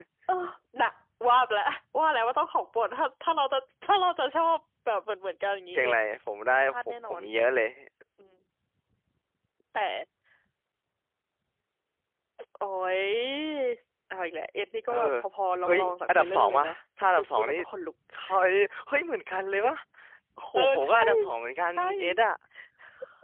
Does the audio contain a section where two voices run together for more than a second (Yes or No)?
Yes